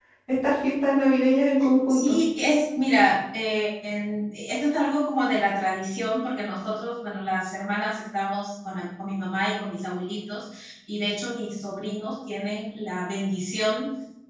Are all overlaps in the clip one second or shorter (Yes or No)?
Yes